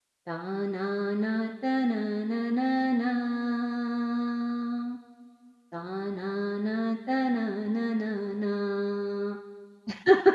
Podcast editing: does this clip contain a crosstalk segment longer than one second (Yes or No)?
No